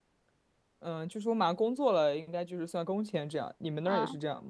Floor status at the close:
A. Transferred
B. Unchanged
A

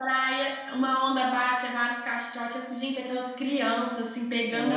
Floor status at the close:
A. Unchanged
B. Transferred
A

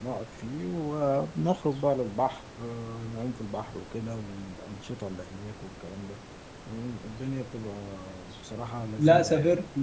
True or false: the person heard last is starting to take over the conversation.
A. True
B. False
A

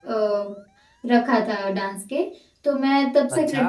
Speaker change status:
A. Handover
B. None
B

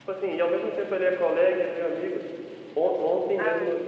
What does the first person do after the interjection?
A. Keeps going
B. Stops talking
A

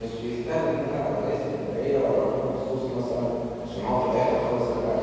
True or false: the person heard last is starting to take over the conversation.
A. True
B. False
A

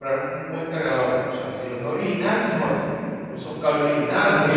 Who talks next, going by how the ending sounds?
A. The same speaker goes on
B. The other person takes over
B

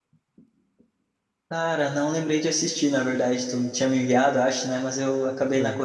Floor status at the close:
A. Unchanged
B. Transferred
A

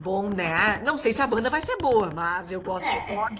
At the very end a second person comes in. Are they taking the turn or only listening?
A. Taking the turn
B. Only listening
B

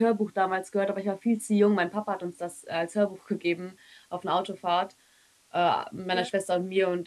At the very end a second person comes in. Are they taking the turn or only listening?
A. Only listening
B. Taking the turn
A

